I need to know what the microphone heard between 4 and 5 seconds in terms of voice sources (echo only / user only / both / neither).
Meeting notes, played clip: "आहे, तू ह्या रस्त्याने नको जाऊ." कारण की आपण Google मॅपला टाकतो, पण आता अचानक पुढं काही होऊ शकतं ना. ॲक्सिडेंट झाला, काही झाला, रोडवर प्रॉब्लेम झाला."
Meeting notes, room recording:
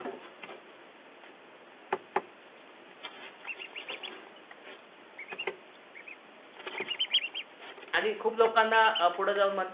neither